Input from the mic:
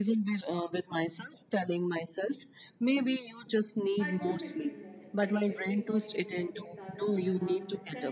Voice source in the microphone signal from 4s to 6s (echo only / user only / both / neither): both